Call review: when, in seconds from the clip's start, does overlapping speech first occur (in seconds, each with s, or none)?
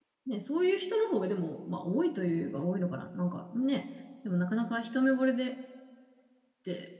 none